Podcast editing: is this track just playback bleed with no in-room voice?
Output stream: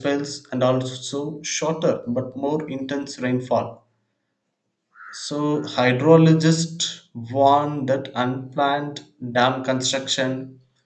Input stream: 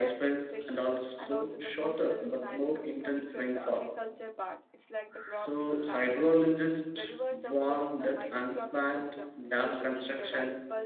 No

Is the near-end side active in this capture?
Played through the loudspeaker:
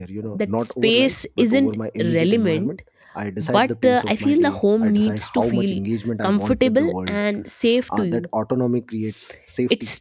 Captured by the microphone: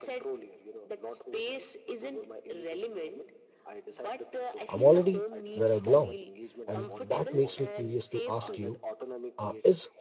Yes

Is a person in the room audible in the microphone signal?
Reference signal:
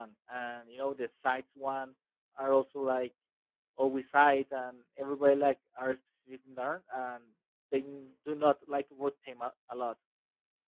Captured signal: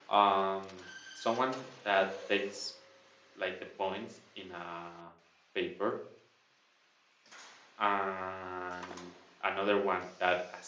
Yes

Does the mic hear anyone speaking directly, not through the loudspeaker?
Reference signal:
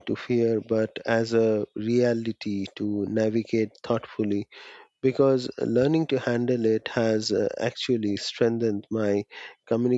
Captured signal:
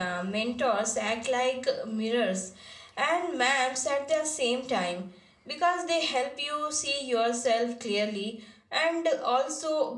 Yes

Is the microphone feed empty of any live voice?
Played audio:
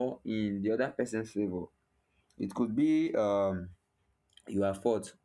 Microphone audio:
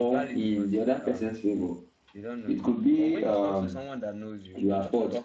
No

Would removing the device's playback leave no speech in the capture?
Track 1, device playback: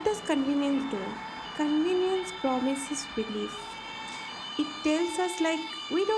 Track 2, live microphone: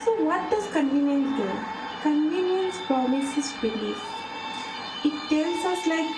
Yes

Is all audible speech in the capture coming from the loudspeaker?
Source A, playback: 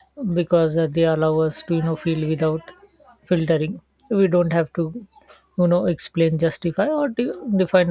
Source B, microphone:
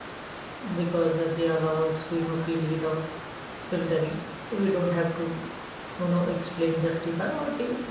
Yes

